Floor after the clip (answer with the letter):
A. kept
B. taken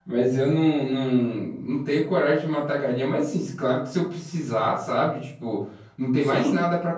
A